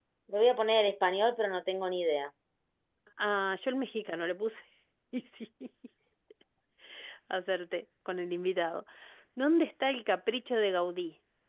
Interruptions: none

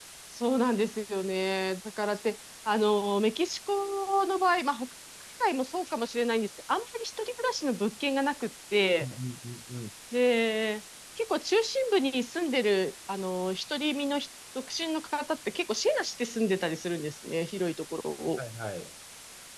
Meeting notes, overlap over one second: none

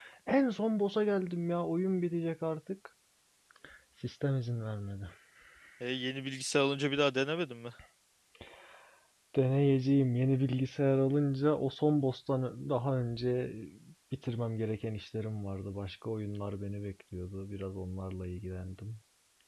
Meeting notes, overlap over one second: none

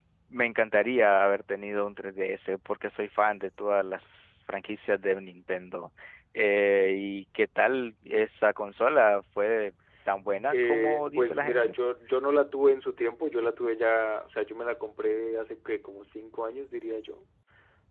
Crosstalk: present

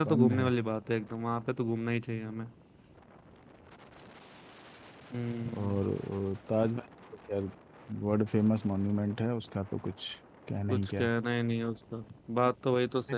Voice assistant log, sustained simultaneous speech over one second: none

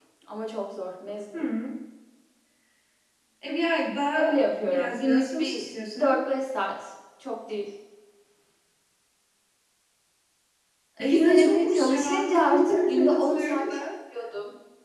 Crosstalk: present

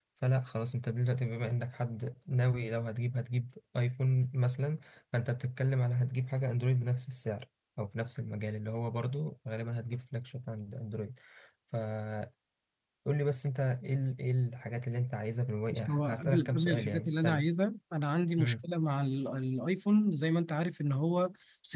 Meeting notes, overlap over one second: present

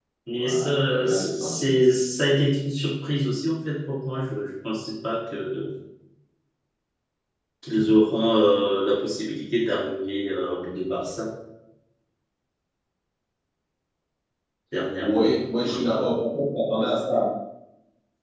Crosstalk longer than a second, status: present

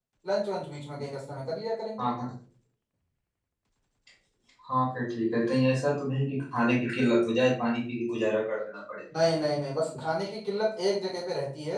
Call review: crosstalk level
none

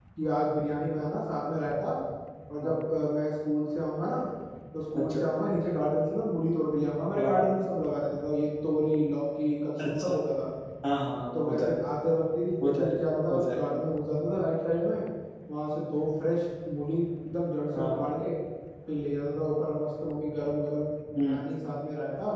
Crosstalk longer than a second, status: none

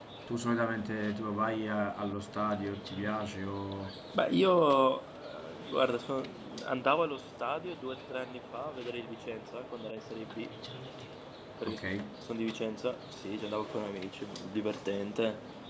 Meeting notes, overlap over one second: none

